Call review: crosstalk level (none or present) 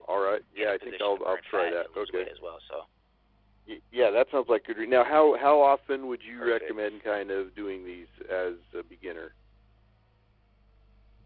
present